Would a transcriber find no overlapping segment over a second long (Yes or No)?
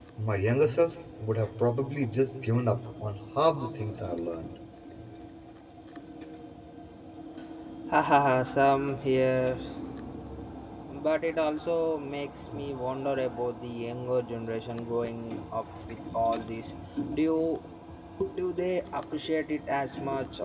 Yes